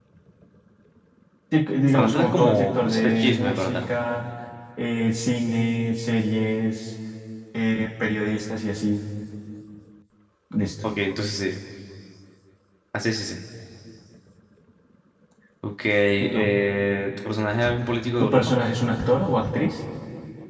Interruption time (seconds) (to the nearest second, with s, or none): 2 s